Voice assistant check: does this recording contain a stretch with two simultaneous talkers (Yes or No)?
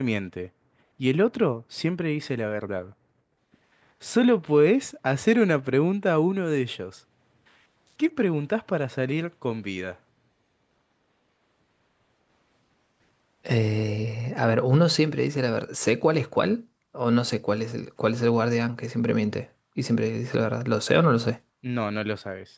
No